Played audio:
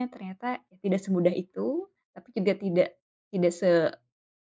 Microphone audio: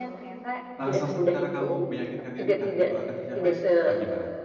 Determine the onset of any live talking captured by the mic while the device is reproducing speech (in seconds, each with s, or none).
0.8 s